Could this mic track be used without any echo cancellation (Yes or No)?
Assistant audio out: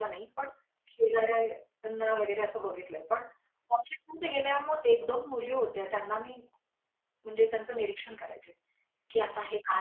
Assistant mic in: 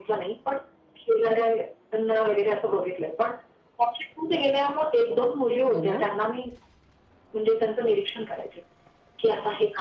No